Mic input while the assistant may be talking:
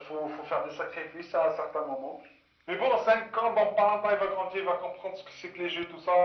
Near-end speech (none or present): none